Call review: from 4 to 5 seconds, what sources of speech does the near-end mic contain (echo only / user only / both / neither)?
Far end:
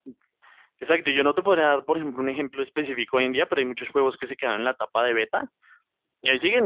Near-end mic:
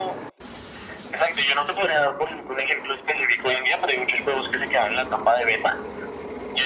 echo only